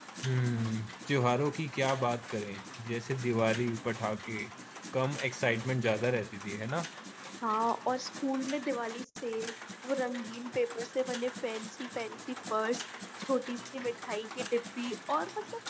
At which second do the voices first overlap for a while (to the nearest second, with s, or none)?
none